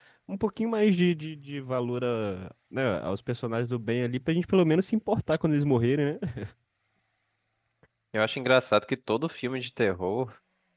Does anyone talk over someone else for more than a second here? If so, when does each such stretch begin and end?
none

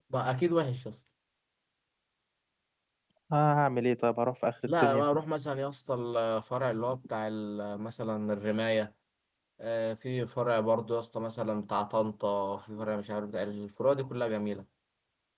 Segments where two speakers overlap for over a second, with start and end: none

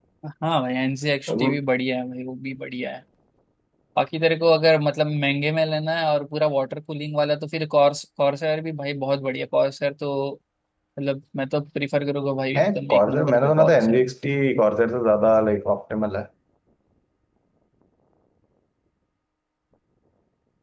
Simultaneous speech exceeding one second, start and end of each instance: 12.6-14.1

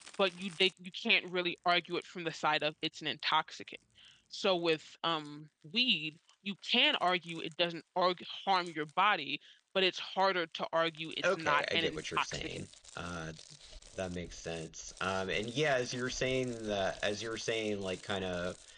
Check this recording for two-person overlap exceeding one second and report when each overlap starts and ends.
11.2-12.6

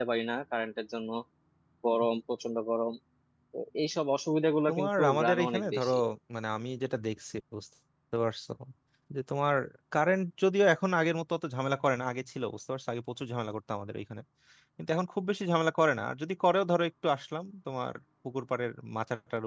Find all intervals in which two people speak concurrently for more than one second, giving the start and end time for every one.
4.7-5.9

